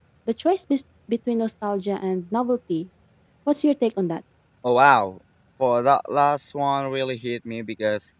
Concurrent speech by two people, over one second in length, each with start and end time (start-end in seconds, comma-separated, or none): none